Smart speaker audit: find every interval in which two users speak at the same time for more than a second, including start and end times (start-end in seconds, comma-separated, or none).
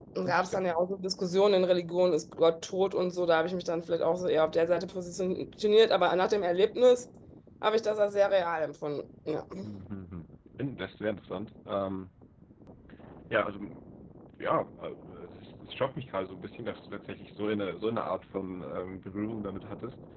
none